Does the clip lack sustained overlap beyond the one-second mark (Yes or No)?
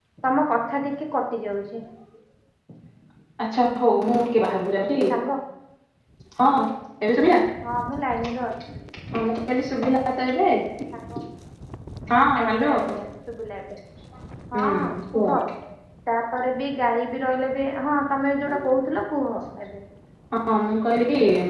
Yes